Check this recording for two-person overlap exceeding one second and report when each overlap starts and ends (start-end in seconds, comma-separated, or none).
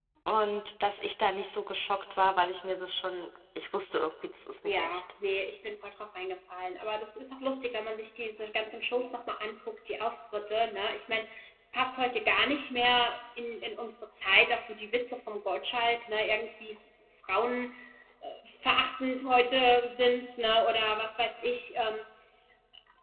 none